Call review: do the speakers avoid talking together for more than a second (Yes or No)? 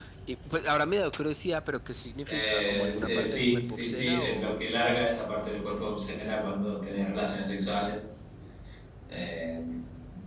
No